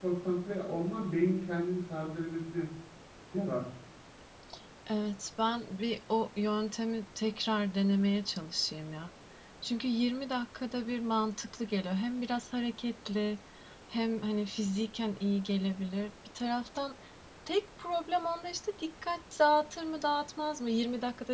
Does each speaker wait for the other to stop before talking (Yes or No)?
Yes